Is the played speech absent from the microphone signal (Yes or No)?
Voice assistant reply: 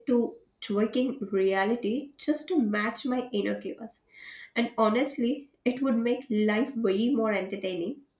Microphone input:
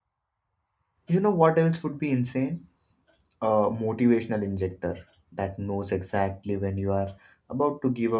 Yes